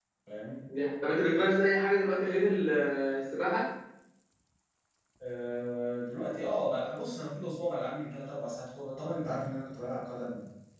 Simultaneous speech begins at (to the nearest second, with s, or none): none